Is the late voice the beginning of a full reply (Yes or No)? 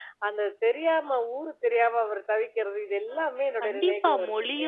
Yes